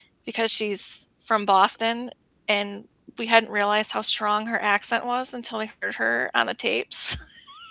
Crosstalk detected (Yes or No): No